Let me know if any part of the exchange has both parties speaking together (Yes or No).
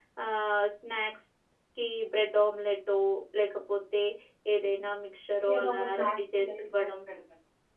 Yes